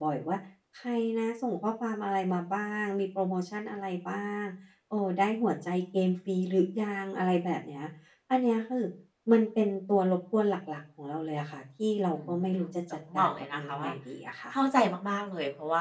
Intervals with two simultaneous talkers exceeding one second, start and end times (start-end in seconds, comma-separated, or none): 12.6-13.9